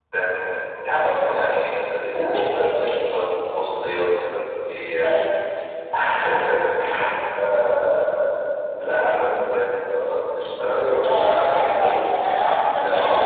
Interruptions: present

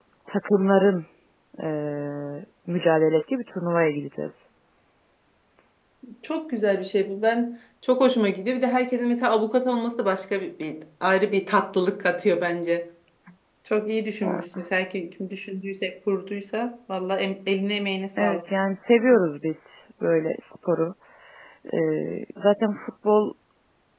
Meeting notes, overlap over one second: none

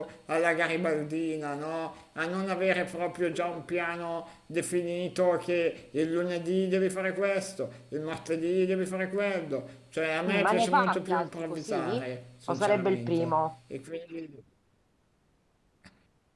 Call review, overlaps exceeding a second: present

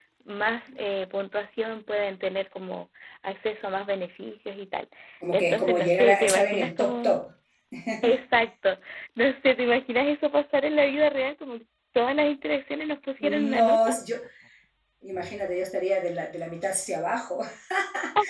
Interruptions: present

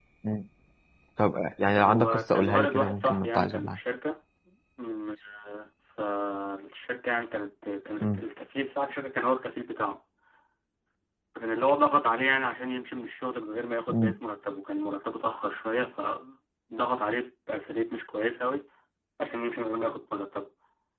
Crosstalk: present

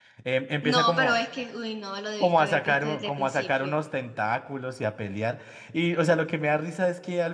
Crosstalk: present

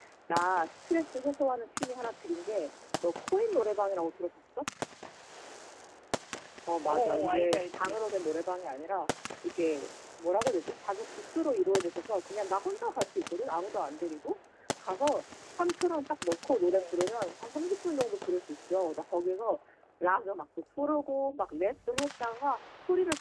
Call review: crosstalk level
present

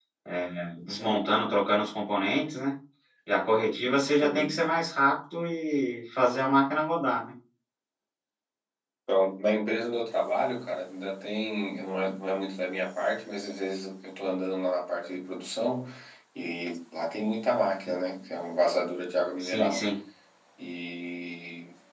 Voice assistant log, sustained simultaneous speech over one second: none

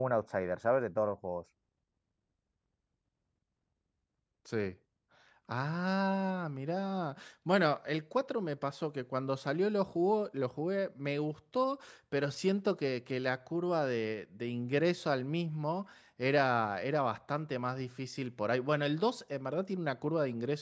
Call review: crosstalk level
none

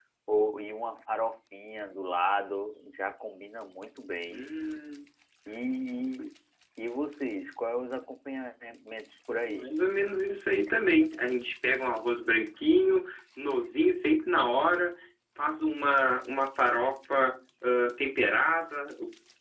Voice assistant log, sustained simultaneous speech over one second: none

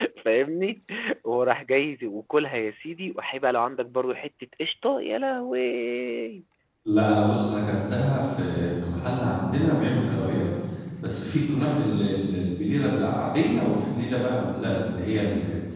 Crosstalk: none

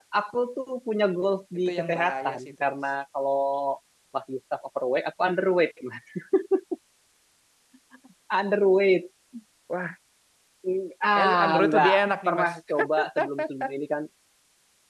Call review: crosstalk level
present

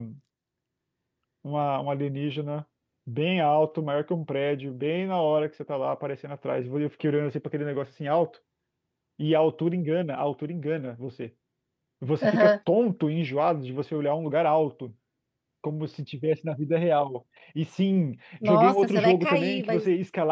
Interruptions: present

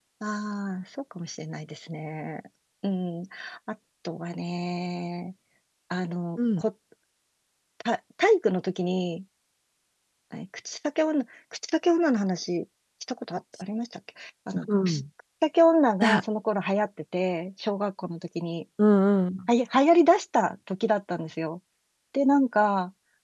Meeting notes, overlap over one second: none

